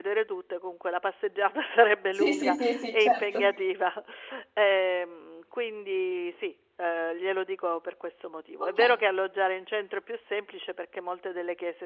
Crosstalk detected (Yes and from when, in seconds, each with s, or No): Yes, from 2.2 s